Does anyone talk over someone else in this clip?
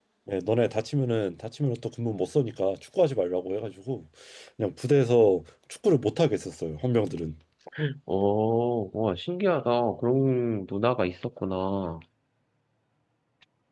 No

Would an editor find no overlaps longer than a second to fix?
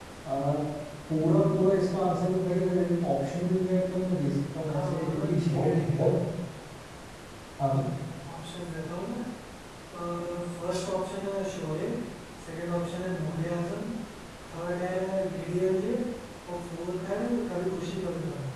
No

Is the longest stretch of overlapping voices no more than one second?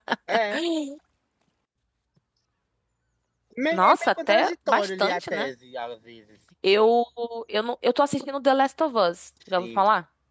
No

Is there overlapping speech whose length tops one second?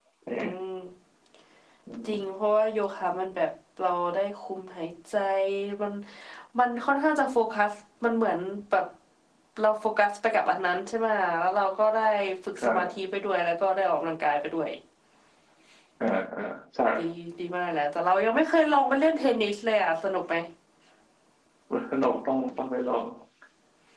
No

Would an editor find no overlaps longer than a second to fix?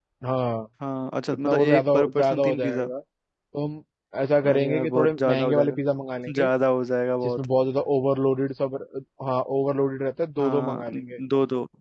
No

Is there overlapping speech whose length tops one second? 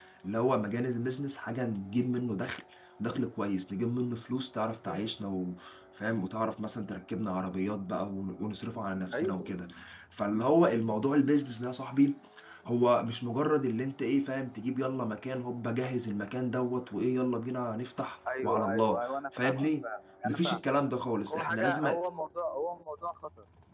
Yes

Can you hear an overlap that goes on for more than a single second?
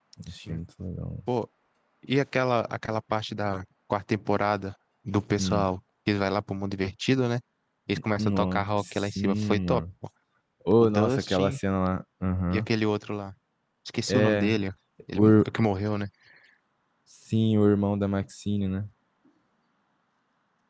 Yes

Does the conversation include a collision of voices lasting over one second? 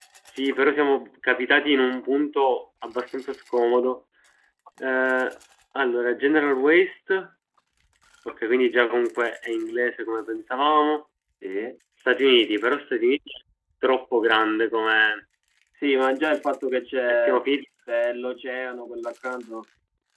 No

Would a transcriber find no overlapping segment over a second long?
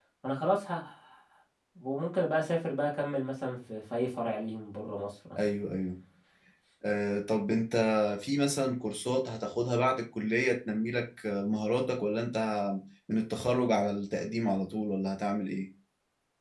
Yes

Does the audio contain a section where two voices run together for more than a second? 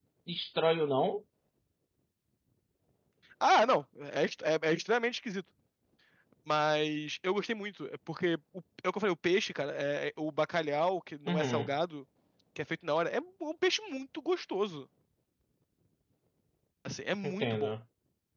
No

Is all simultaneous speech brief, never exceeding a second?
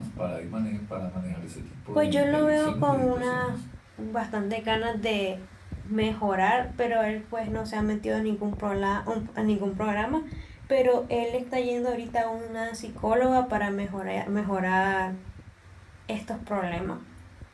No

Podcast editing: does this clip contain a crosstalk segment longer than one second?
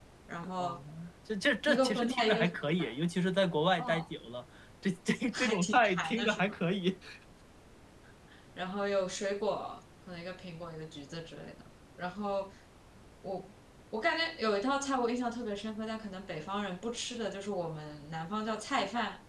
Yes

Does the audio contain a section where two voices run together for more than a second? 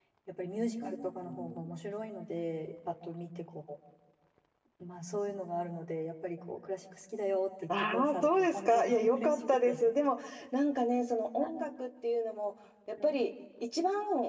Yes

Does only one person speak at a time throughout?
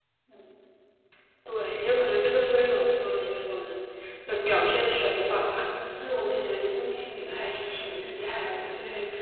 Yes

